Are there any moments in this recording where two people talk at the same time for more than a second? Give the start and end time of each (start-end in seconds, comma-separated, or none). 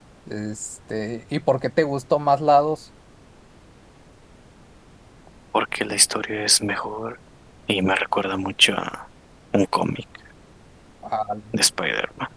none